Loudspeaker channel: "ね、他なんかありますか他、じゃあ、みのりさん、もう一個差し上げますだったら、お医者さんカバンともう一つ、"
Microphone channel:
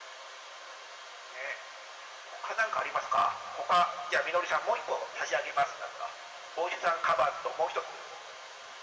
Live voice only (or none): none